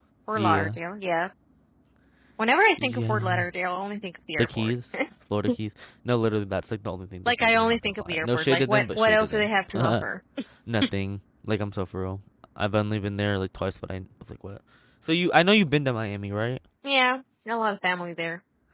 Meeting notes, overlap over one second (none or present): present